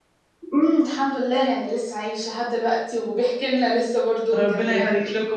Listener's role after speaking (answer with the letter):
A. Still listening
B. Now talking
B